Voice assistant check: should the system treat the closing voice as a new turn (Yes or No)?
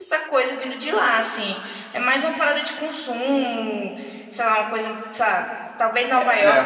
No